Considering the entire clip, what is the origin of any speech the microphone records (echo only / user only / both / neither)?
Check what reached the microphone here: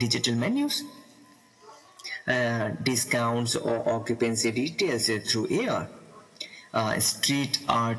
echo only